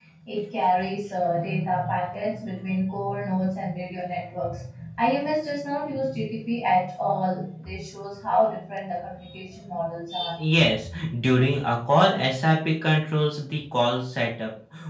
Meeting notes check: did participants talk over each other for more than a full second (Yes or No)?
No